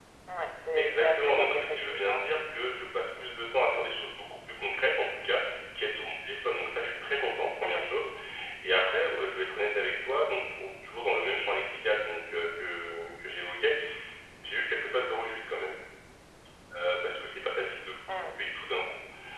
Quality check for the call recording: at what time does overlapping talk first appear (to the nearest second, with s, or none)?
1 s